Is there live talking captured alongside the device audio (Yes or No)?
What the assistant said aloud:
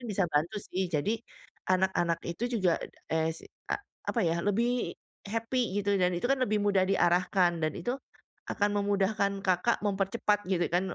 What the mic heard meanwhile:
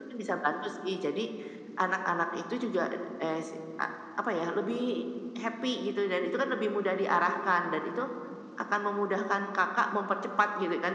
No